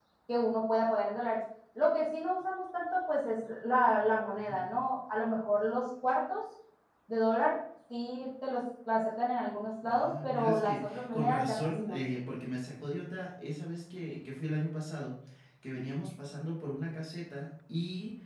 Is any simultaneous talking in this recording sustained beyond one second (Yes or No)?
Yes